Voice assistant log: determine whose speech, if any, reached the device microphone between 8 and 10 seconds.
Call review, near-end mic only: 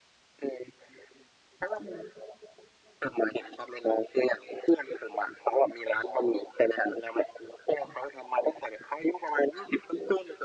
echo only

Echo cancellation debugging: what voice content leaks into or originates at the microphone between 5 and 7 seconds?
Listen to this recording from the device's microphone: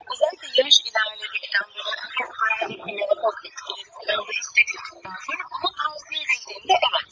echo only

